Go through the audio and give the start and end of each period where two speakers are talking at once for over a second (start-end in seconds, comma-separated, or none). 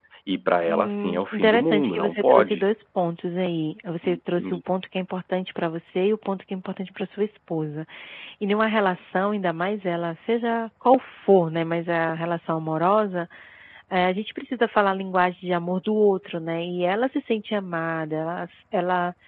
0.7-2.6